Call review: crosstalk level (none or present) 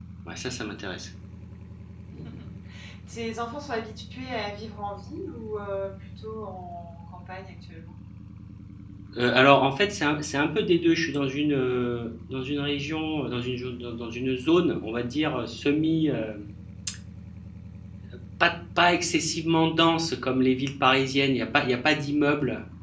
none